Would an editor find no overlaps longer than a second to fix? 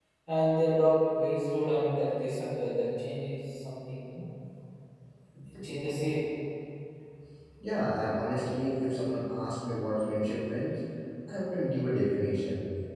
Yes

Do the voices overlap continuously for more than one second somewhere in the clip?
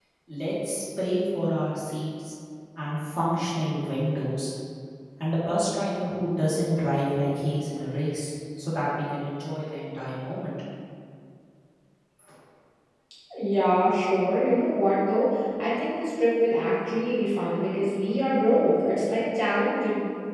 No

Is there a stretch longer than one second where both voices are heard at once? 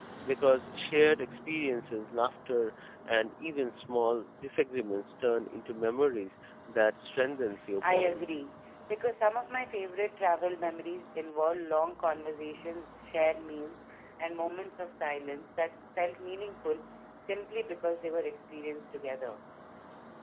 No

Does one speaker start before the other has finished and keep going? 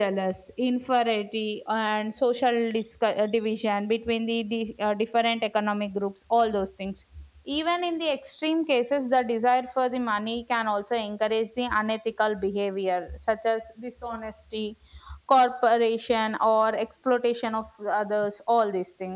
No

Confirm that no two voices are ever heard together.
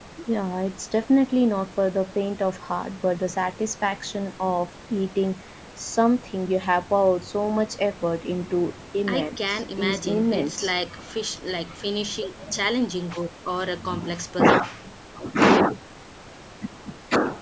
No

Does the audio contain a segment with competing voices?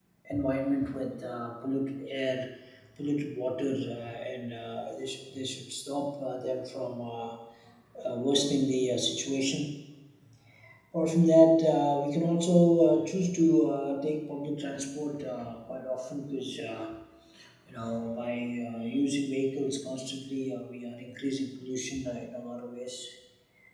No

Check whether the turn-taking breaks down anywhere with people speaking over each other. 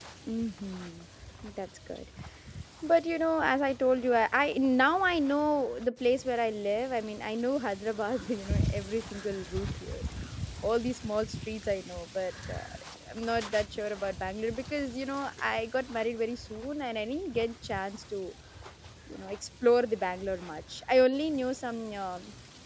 No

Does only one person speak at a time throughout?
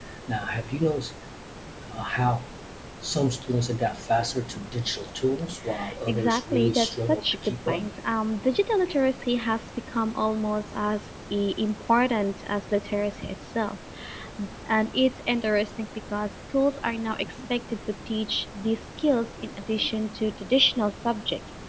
No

